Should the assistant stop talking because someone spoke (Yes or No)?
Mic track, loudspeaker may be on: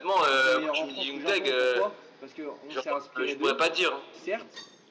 Yes